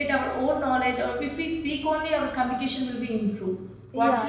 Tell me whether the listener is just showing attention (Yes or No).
No